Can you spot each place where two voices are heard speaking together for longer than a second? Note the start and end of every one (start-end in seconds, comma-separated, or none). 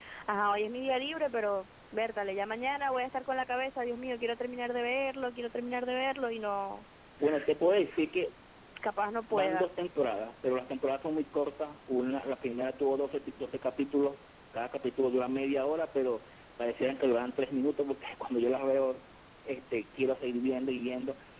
none